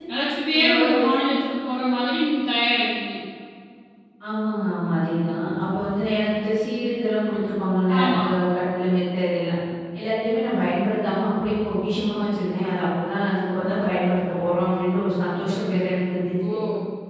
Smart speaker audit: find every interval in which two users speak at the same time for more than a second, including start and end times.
none

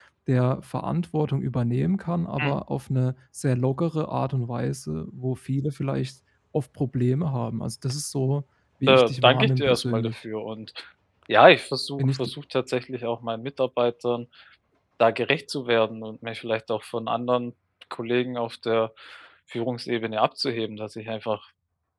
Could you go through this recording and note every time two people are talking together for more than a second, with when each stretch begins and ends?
8.9-10.1

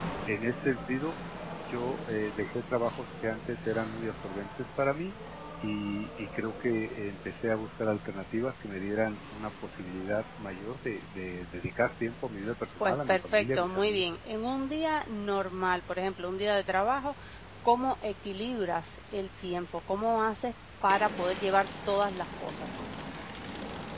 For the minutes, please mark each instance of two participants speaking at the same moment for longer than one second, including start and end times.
12.8-14.2

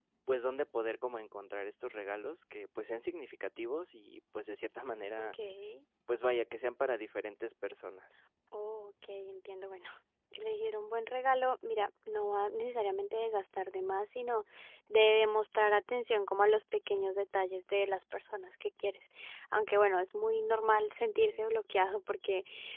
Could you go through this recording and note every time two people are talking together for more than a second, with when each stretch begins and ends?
none

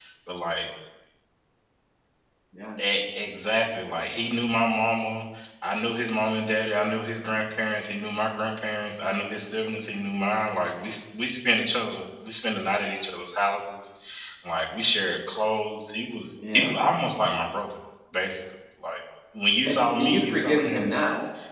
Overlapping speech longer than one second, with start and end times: 19.6-20.9

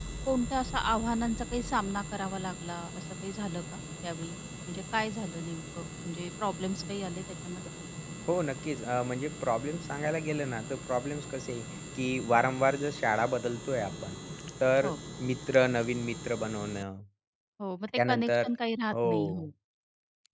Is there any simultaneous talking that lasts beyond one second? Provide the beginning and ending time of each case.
none

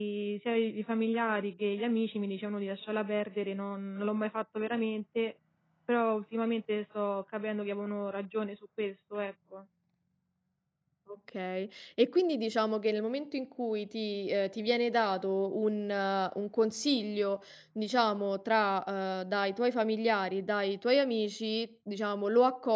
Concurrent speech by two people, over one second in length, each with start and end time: none

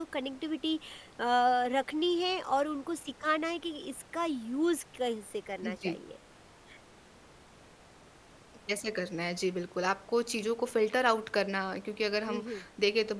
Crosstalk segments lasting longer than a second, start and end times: none

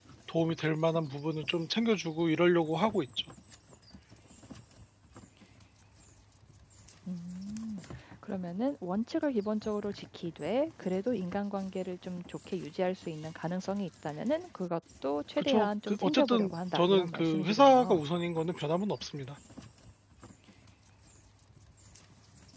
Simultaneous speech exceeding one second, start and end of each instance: 15.4-18.0

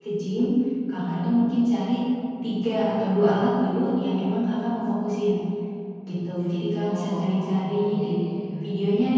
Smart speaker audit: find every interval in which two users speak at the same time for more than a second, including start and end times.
6.8-8.2

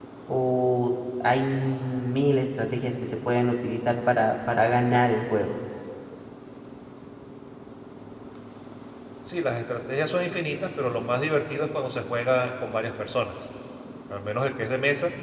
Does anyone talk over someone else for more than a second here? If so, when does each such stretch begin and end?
none

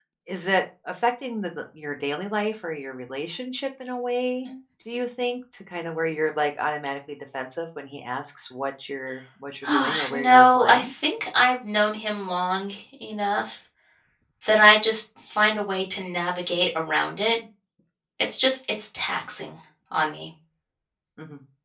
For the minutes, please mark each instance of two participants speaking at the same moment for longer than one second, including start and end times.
9.7-10.9

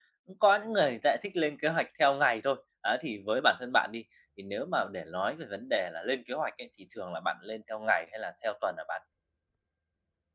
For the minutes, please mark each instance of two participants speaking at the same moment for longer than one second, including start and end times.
none

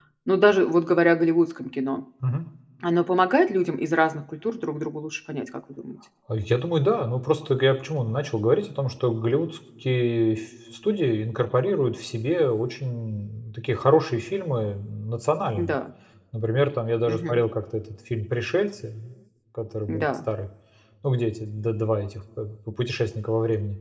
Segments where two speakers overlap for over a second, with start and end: none

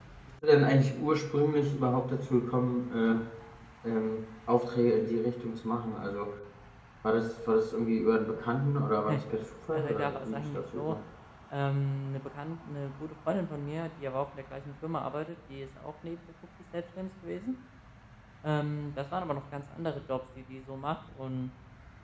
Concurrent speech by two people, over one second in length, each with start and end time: 9.7-10.9

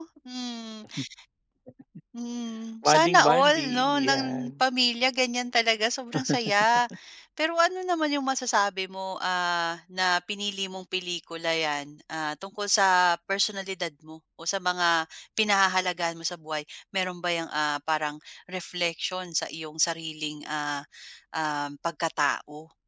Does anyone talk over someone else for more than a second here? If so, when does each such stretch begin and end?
2.8-4.5

